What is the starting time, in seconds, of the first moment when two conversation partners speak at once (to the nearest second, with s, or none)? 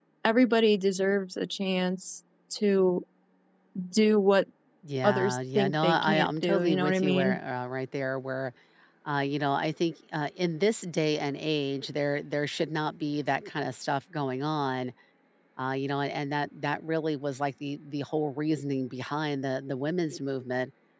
5 s